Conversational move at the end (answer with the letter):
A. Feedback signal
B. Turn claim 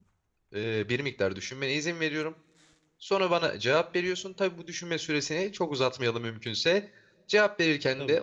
A